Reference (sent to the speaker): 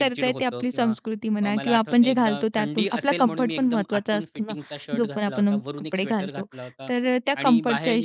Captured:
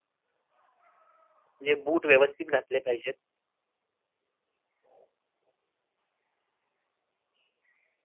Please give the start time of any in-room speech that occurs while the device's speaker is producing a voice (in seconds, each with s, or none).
1.6 s